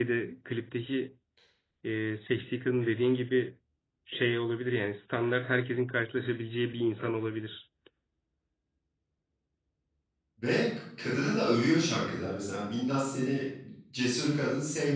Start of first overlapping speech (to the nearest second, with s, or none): none